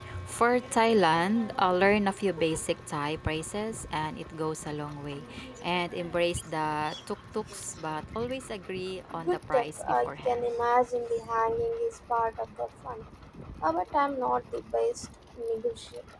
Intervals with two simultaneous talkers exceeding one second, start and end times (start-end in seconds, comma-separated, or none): 9.2-10.5